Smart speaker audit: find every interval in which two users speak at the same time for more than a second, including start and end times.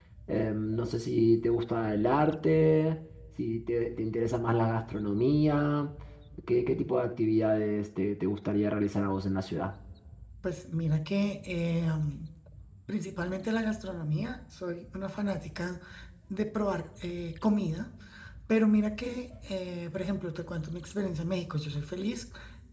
none

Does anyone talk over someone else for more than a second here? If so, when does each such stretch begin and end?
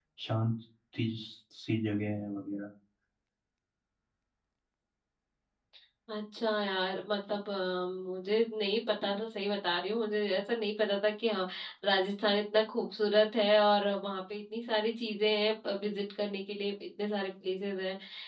none

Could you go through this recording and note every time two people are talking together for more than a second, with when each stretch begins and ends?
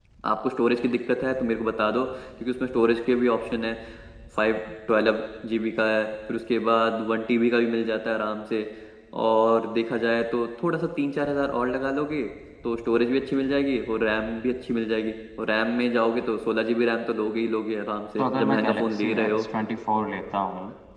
18.2-19.4

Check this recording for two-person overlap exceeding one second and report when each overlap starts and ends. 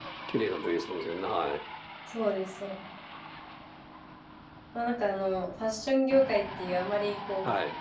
none

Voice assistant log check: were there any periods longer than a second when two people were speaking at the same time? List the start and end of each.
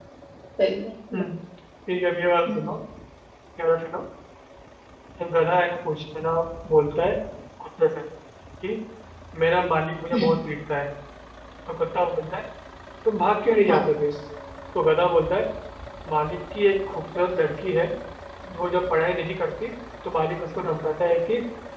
none

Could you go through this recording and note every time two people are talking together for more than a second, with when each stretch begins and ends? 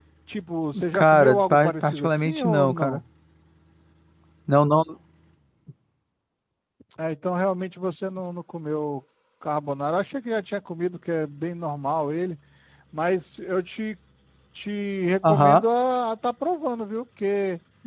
0.9-3.0

